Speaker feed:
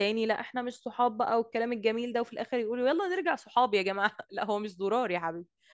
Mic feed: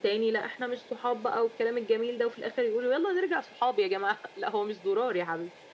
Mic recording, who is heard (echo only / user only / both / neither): echo only